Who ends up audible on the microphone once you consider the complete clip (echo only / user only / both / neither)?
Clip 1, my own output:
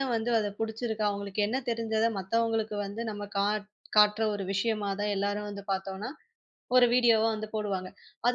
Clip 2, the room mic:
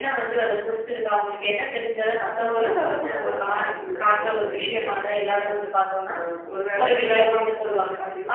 both